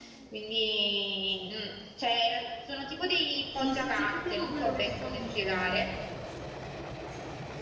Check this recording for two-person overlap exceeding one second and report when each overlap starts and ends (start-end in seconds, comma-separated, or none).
3.6-5.9